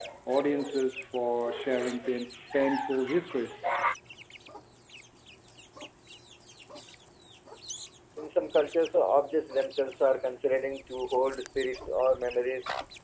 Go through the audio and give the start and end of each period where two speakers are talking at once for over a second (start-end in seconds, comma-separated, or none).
none